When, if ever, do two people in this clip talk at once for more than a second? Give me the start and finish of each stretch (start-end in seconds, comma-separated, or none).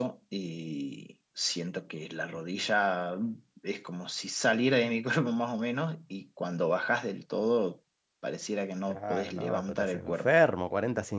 8.9-10.3